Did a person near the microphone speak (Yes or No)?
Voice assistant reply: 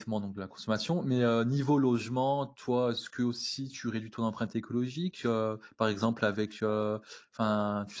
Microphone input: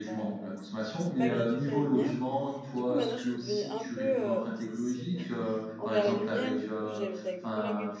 Yes